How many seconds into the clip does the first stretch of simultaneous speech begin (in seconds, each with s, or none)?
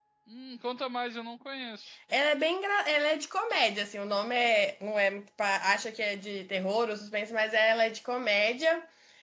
none